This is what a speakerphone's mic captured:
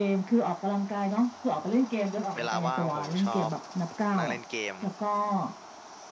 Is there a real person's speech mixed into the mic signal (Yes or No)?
Yes